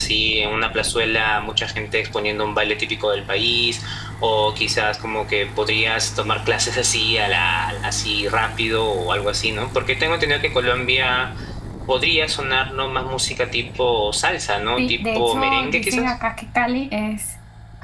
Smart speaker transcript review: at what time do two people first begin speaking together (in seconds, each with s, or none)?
14.8 s